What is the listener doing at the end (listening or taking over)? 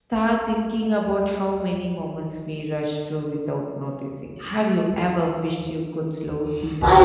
taking over